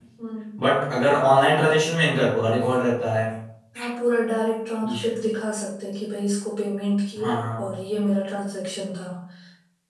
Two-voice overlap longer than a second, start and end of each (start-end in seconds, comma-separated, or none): none